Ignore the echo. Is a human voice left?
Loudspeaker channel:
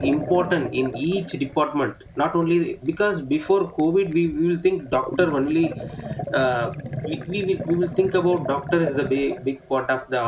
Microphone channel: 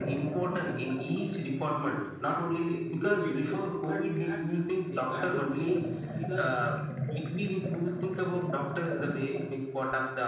Yes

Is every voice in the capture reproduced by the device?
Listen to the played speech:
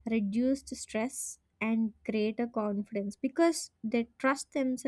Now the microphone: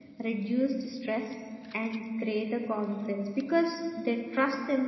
Yes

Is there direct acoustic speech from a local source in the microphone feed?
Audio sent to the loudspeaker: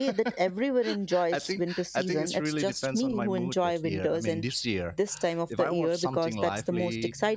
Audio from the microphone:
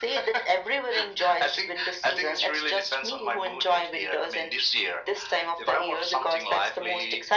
No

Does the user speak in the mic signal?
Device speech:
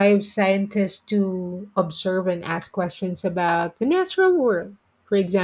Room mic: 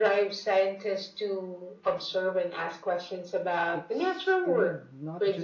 Yes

